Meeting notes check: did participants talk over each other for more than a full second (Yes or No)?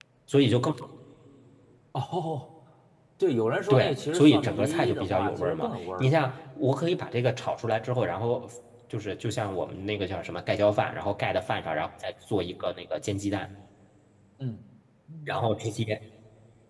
Yes